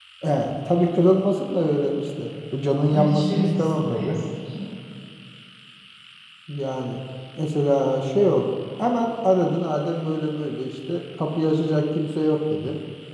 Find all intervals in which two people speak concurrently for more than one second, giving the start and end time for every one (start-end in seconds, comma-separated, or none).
2.9-4.2